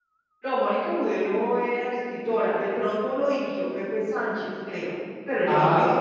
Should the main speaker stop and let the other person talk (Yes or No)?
Yes